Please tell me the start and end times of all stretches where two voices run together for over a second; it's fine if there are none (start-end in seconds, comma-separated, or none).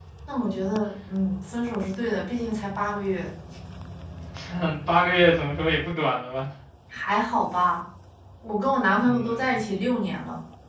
none